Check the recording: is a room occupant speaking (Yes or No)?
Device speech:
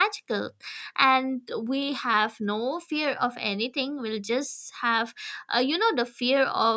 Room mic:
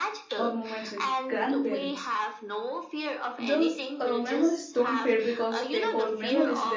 Yes